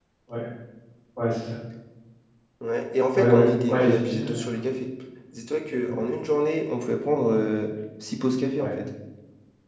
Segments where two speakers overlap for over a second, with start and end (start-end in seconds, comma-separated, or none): 3.1-4.4